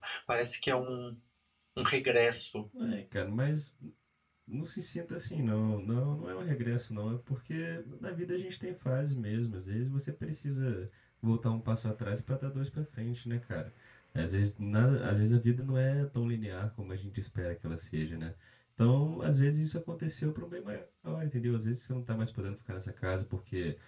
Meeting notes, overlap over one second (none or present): none